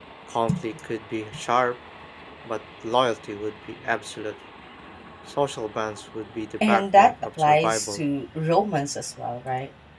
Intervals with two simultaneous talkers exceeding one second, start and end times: 6.7-8.0

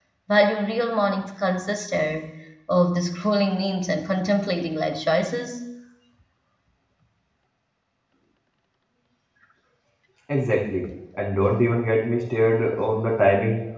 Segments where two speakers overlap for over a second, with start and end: none

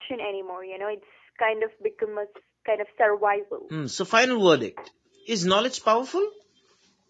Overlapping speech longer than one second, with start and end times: none

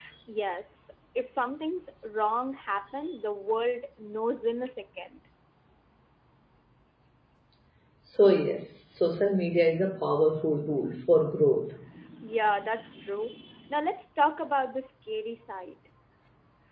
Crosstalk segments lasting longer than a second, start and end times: none

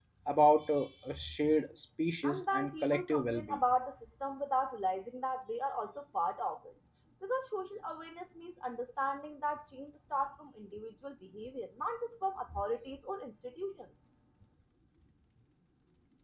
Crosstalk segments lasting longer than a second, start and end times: 2.2-3.6

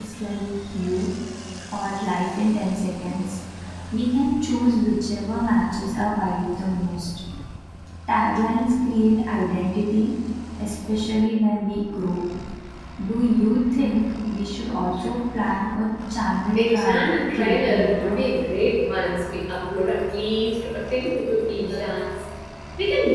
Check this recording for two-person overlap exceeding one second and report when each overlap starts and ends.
16.6-18.2

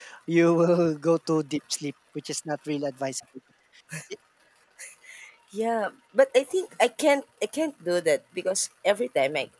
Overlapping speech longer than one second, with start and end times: none

